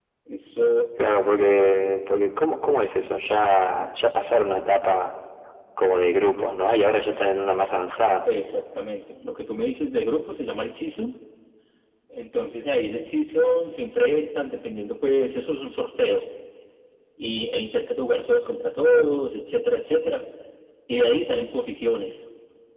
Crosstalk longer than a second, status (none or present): none